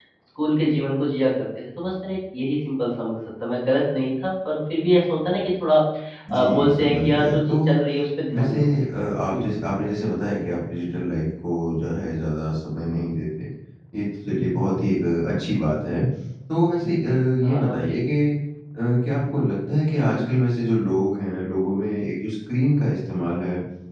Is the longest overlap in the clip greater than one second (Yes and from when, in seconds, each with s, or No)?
Yes, from 6.3 s